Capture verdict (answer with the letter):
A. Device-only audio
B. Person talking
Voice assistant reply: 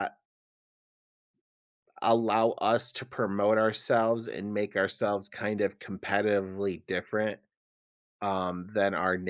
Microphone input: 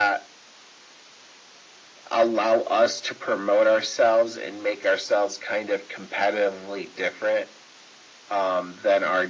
A